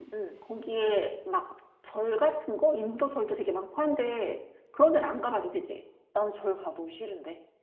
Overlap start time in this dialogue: none

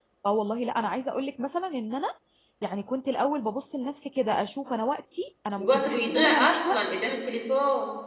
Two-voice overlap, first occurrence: 5.6 s

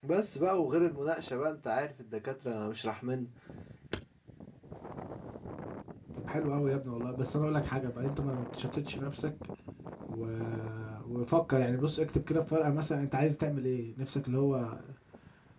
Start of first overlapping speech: none

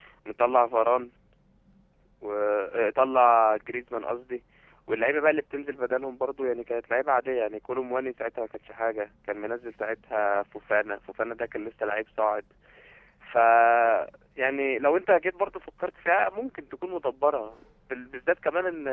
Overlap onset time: none

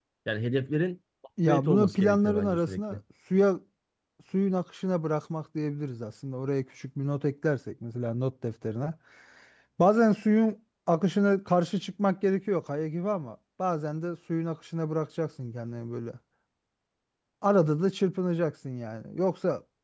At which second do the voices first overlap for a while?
1.4 s

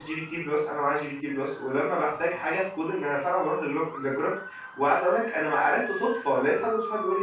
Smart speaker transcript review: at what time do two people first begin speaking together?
none

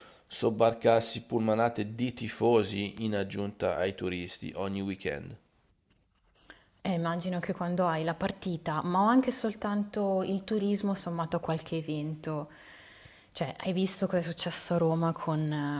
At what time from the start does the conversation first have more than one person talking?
none

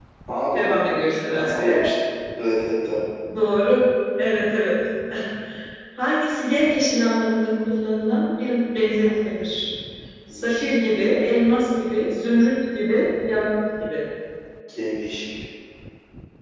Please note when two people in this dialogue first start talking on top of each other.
0.5 s

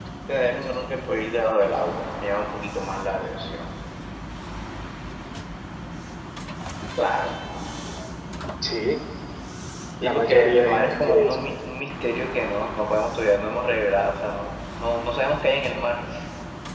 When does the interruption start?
10.0 s

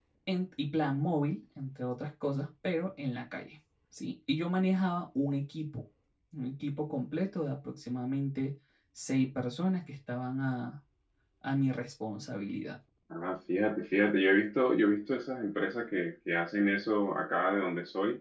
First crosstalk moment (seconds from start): none

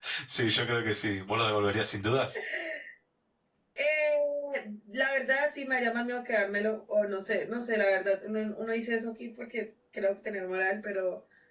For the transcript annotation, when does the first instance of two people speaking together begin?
none

